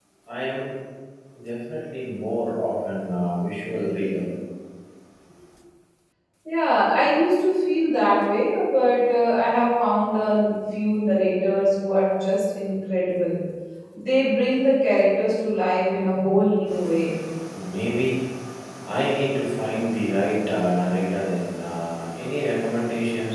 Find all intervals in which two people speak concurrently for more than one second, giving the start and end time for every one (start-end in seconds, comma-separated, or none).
none